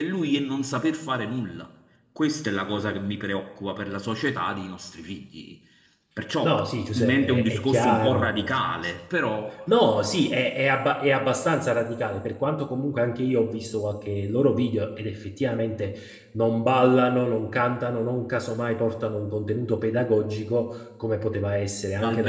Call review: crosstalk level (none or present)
present